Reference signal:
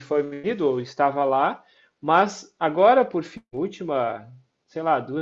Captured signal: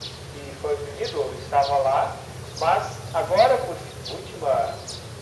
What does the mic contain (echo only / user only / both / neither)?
echo only